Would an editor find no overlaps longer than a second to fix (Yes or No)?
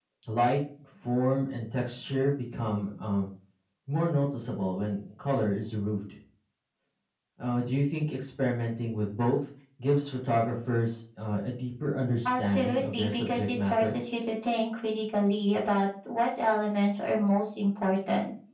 No